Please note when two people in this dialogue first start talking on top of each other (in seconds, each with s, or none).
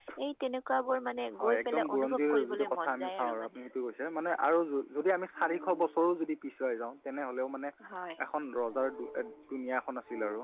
1.4 s